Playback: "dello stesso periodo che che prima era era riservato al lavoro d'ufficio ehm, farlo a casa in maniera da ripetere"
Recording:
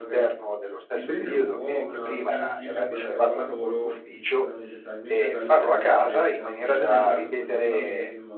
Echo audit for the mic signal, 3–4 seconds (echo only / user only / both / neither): both